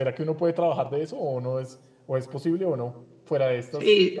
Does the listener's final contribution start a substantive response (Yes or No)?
Yes